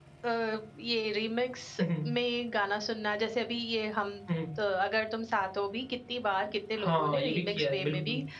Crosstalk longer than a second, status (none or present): present